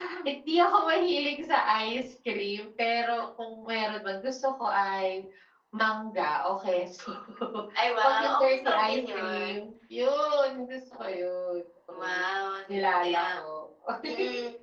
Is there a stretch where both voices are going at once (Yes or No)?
Yes